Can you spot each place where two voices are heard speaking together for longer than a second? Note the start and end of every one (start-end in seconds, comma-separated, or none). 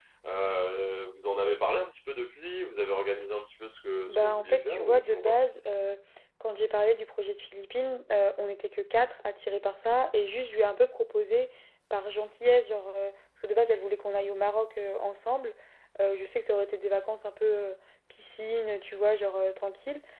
4.1-5.4